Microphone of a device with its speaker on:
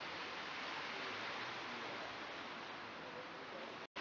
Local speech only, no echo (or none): none